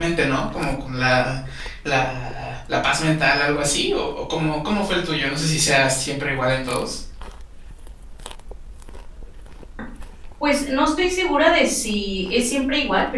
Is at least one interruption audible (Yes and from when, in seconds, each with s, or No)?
No